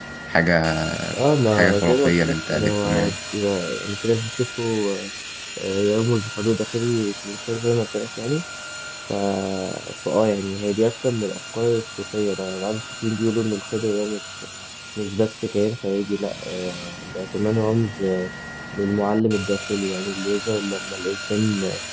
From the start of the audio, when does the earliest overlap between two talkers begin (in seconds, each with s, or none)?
1.5 s